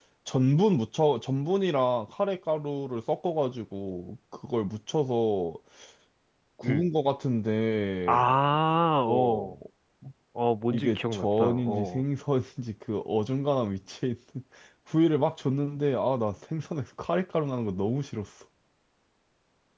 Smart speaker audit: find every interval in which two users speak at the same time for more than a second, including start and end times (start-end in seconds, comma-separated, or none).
10.7-12.0